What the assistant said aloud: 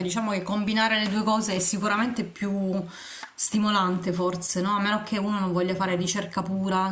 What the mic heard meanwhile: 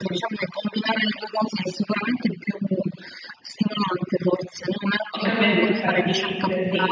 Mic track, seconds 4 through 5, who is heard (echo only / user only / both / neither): echo only